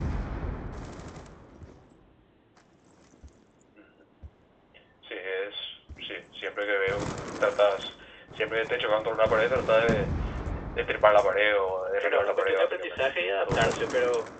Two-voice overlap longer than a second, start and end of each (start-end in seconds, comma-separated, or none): 12.0-13.8